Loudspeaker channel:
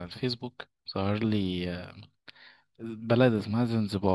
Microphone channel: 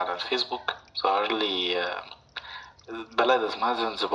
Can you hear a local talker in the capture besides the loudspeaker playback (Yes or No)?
No